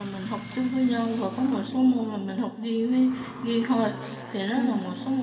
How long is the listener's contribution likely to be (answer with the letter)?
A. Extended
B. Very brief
B